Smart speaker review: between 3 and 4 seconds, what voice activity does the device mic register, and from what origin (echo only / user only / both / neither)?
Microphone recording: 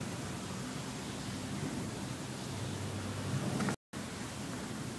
neither